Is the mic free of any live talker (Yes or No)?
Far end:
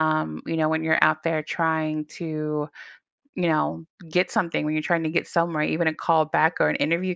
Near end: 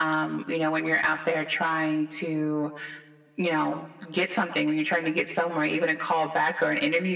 Yes